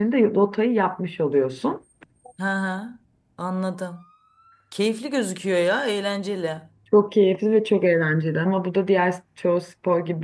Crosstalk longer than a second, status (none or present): none